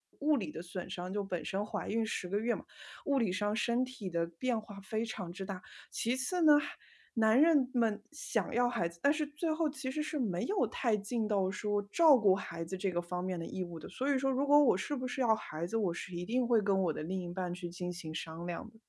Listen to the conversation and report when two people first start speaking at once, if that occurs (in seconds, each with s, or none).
none